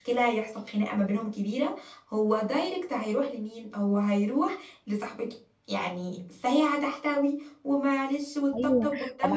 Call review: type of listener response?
taking over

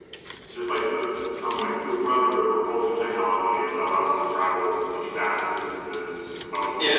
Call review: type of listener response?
taking over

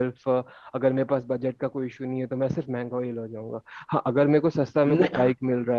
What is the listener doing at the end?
listening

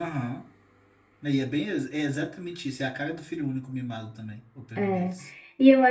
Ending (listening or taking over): taking over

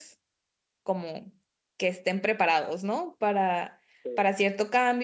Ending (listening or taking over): listening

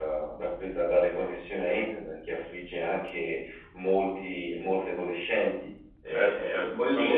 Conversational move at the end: taking over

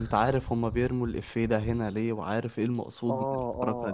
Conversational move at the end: taking over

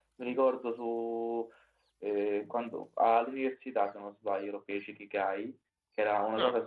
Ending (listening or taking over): listening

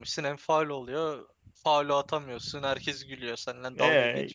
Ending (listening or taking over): taking over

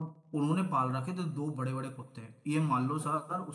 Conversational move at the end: listening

